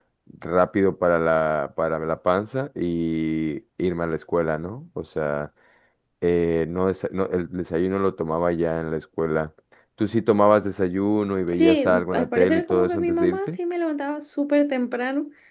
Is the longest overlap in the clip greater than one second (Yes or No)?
Yes